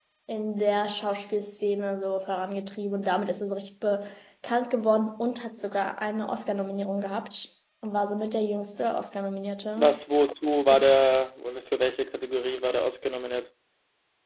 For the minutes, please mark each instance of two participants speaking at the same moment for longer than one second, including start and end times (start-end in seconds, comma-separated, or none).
none